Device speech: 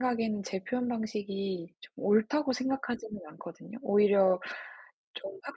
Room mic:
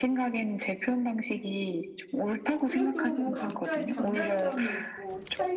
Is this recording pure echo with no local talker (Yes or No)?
No